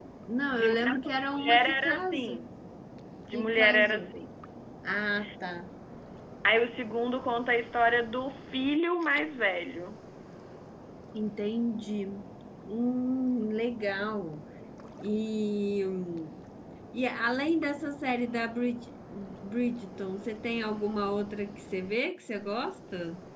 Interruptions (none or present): present